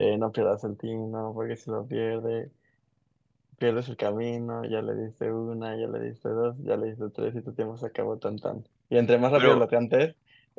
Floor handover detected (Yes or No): No